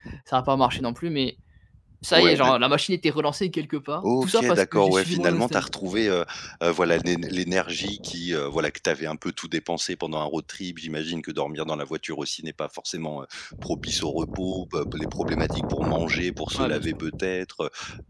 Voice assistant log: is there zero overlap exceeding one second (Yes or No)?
No